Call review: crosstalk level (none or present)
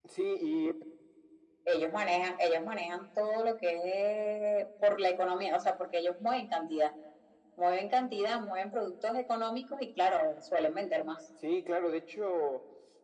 none